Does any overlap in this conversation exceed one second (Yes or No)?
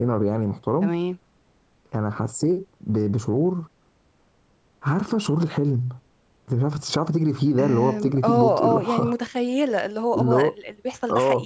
Yes